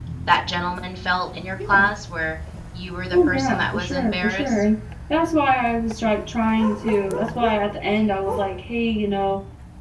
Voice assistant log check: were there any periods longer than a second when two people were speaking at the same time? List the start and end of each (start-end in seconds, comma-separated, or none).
3.1-4.6